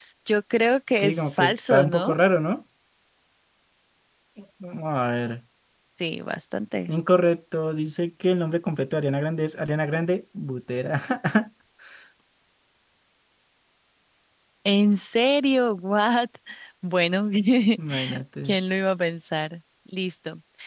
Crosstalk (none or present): present